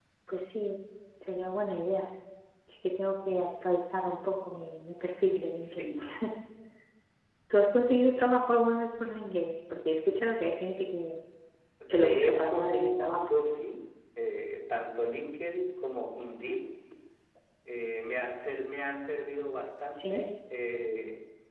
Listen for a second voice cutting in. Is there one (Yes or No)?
Yes